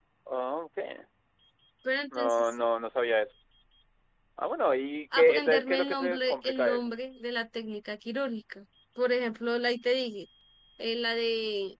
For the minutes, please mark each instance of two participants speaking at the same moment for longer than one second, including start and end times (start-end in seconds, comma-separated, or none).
5.2-6.9